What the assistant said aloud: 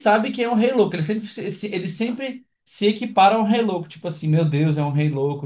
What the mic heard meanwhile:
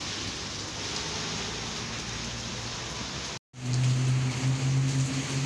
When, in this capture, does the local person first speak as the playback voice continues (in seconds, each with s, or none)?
none